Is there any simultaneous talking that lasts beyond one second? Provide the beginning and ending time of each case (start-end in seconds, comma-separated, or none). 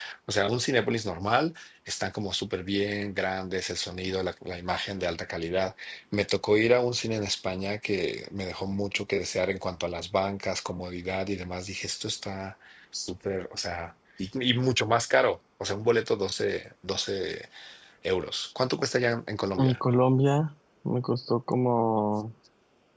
none